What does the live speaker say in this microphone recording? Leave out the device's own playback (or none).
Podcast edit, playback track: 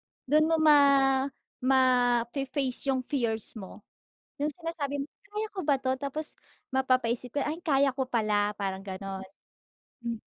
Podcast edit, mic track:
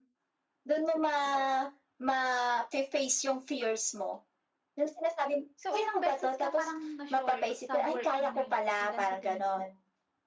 So, ilang beses ka parang na-short sa work mo na yun? Ilan sa tingin mo?